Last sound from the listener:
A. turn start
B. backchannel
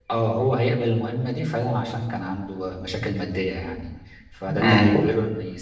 B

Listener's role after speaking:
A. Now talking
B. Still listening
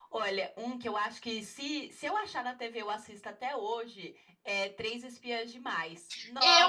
A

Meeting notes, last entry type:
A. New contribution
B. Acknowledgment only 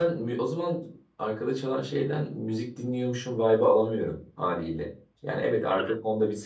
B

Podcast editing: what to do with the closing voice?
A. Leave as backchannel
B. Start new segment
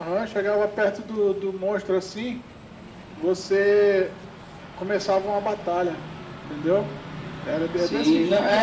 B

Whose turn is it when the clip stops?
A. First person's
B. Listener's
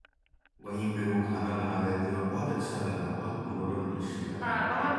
B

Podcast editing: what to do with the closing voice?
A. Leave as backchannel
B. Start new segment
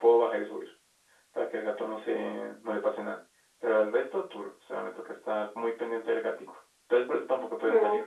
B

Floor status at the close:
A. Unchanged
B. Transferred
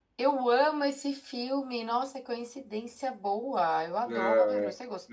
B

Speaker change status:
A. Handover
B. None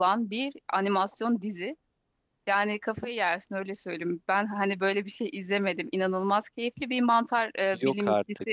B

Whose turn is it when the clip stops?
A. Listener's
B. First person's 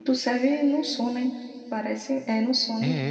A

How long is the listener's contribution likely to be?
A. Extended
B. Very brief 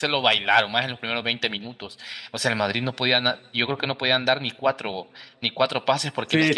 A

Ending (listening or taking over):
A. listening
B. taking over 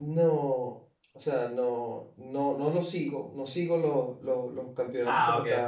A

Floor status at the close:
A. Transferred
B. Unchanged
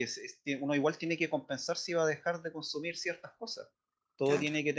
B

